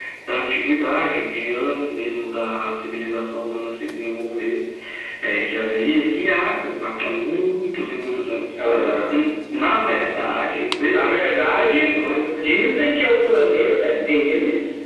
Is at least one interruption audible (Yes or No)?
Yes